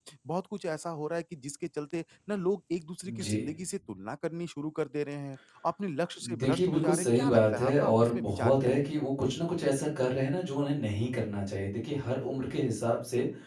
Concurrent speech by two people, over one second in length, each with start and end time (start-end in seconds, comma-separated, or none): 6.4-8.8